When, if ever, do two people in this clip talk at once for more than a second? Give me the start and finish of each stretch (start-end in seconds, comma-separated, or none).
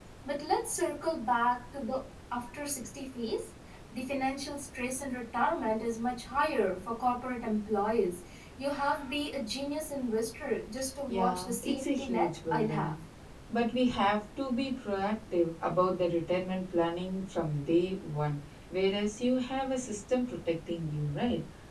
11.1-12.9